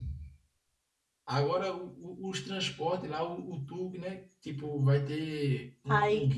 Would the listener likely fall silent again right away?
No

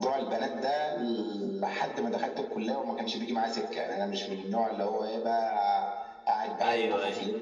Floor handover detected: No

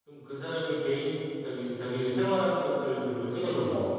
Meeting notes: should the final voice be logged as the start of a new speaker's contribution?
Yes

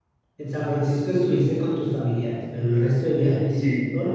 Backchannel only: No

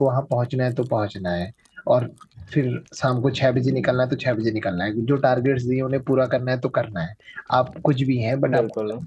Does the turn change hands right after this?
No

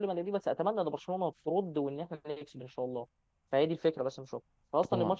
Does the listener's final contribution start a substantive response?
No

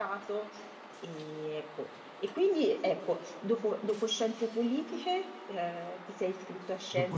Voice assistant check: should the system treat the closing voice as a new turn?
Yes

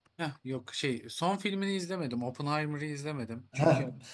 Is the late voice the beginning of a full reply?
No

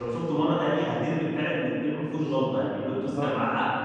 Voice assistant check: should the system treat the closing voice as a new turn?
Yes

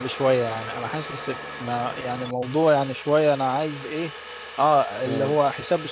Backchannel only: Yes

